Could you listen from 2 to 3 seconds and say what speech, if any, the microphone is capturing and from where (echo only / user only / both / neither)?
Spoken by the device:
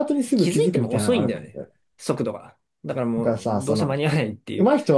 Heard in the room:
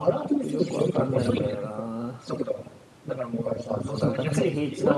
both